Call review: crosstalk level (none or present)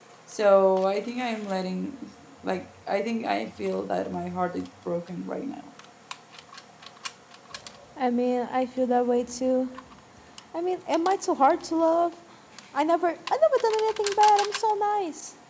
none